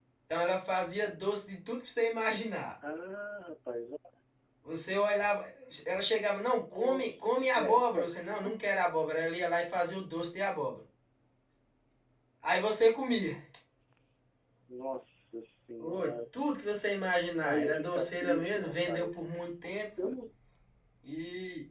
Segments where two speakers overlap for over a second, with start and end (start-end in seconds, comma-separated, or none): 6.6-8.1, 17.4-19.1